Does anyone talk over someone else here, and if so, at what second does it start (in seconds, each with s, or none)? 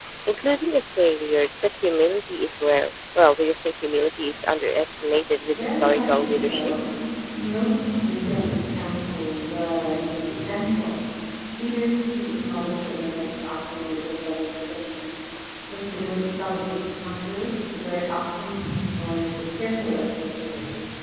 5.5 s